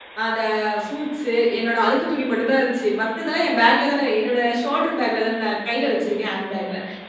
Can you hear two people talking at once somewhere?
No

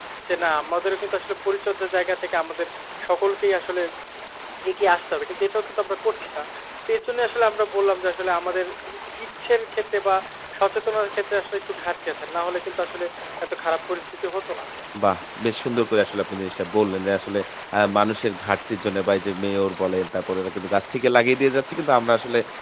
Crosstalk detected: No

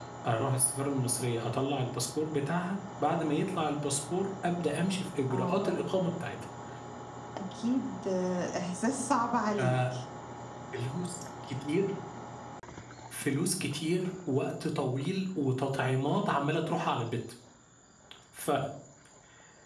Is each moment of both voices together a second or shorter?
Yes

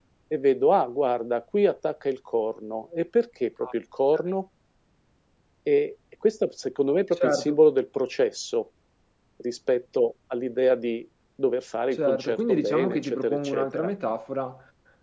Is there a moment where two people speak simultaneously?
Yes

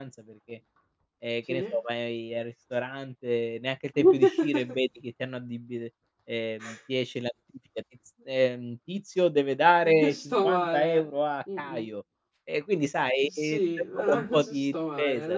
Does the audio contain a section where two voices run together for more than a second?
Yes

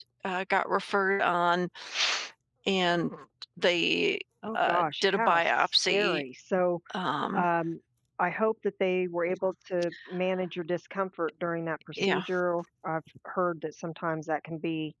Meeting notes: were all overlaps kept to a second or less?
No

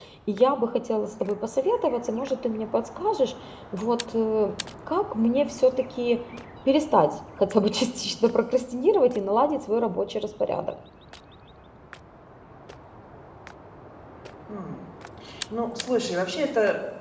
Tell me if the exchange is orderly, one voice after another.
Yes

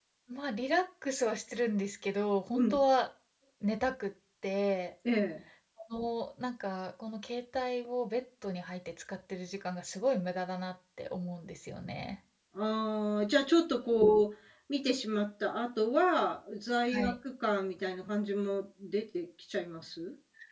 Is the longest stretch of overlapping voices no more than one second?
Yes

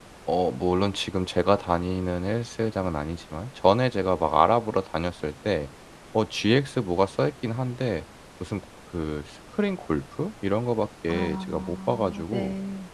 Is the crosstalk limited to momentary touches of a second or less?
No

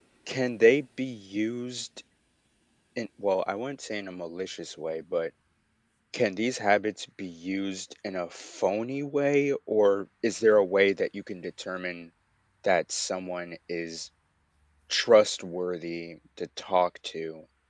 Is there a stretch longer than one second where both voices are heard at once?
No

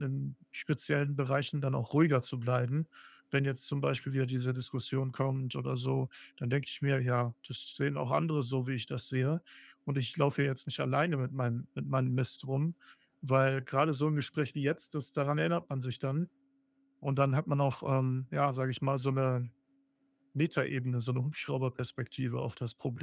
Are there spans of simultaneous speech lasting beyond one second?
No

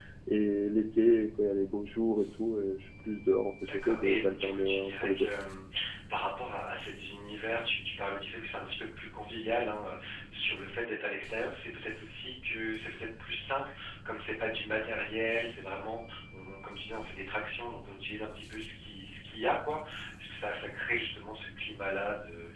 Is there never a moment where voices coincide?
No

